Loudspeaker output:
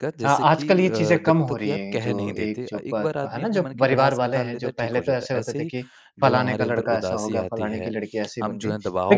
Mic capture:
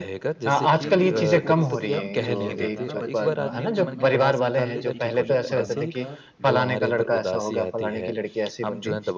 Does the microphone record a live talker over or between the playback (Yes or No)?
Yes